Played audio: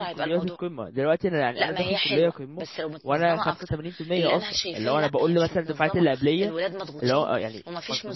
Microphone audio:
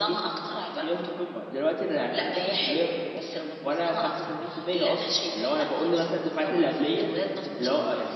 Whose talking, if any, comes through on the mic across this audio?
echo only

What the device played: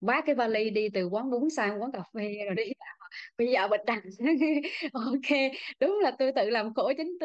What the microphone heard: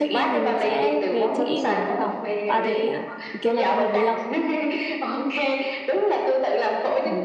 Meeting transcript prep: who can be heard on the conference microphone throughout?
both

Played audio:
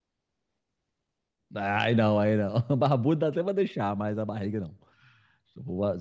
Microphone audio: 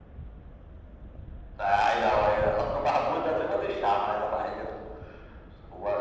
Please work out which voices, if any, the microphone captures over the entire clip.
echo only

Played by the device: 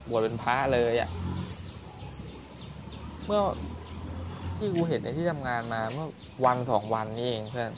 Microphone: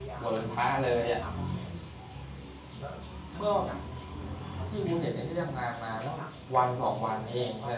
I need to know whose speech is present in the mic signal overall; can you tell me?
both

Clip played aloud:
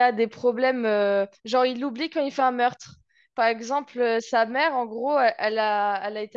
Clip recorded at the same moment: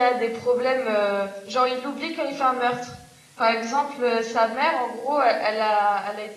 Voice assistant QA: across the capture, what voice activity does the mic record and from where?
echo only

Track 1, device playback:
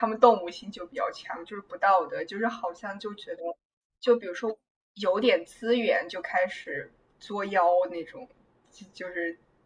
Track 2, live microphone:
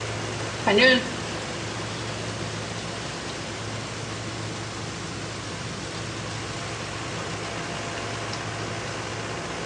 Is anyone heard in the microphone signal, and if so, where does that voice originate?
user only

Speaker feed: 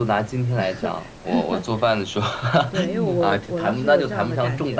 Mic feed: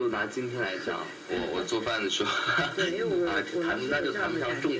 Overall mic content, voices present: echo only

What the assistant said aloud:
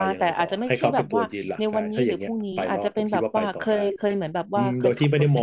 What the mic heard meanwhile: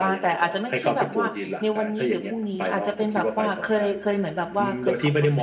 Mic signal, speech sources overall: echo only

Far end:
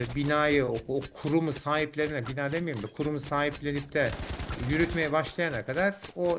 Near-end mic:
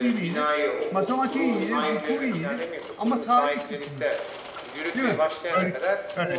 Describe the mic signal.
both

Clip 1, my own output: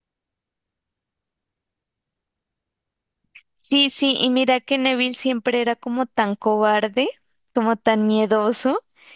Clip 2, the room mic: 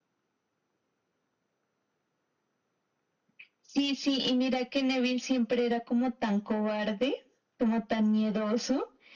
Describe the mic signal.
echo only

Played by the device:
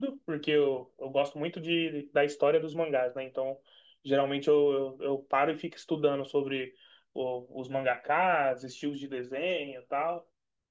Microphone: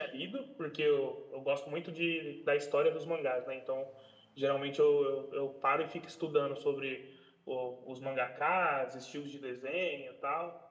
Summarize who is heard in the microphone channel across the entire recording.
echo only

